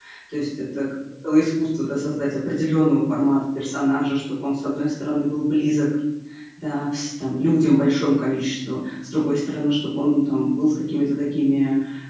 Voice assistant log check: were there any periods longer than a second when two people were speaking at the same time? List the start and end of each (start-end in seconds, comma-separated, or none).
none